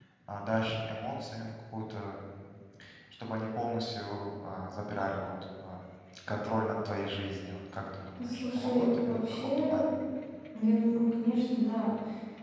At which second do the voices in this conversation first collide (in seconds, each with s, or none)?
8.2 s